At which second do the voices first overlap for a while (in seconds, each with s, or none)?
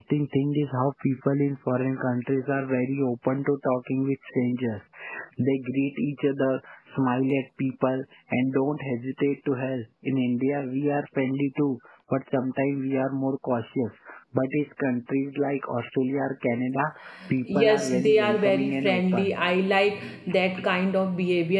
17.5 s